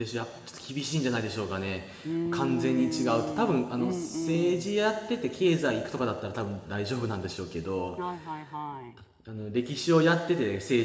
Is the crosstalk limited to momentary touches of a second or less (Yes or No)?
No